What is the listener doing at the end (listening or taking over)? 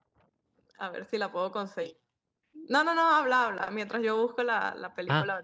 taking over